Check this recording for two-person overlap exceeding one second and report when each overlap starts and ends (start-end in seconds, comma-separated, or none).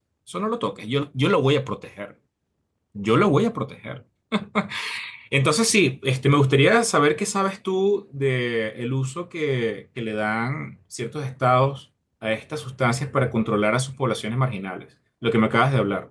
none